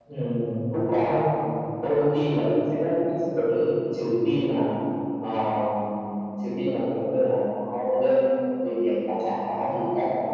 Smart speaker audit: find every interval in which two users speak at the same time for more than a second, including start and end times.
none

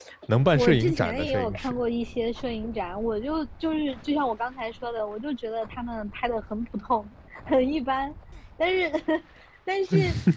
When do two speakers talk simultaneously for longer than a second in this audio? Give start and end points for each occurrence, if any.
0.6-1.8

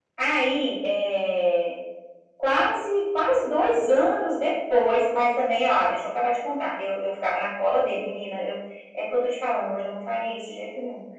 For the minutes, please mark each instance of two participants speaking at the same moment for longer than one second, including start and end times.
none

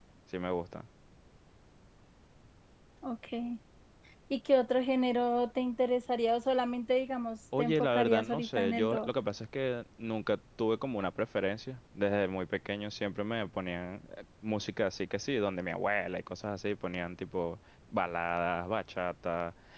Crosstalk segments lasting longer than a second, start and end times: 7.6-9.1

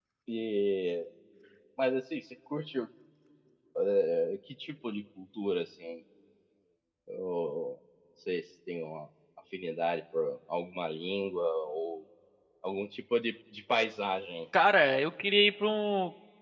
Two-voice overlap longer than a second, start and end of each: none

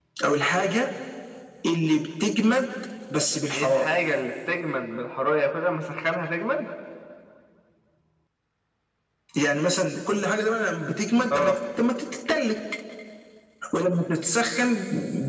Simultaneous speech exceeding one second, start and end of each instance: none

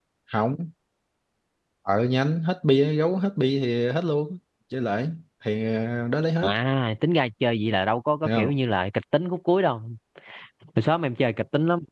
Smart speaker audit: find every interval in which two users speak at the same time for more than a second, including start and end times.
none

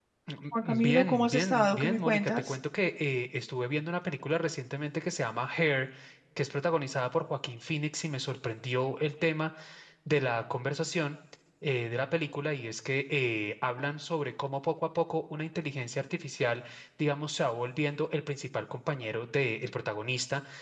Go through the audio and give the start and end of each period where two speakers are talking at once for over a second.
0.7-2.5

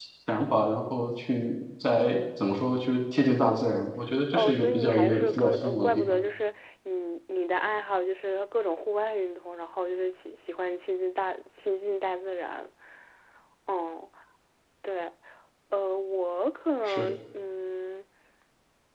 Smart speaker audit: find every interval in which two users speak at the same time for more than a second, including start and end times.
4.3-6.2

